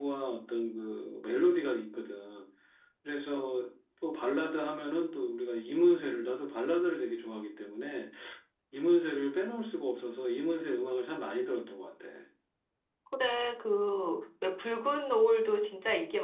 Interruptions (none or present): none